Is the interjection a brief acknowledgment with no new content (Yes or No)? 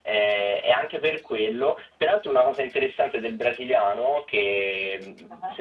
Yes